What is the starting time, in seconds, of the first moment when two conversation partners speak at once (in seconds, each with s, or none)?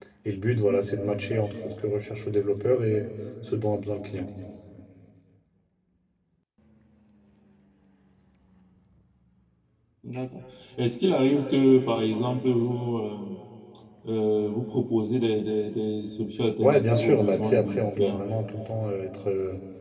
16.6 s